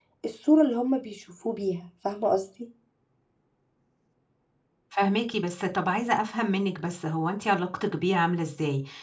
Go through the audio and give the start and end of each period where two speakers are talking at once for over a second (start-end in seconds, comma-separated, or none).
none